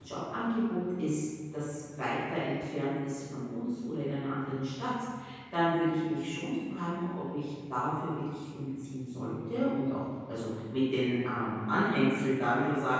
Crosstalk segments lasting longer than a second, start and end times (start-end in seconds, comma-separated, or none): none